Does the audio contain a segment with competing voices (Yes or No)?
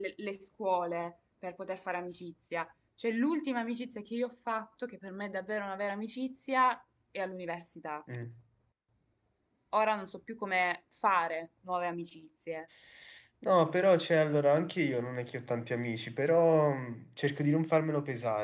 No